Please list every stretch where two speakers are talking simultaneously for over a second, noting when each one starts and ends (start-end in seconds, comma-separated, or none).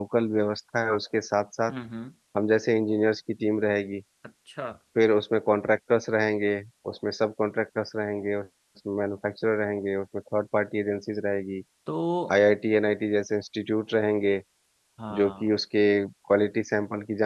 none